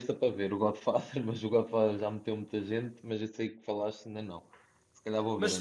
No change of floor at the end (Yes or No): No